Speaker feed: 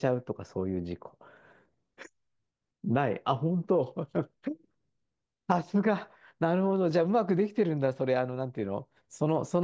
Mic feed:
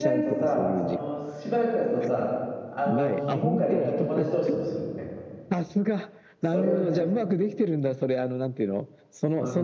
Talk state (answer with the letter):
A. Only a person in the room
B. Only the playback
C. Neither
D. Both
D